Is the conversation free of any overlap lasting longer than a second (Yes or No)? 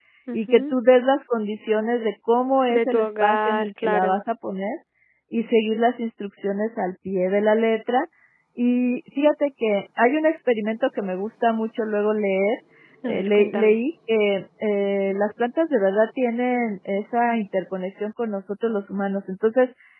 No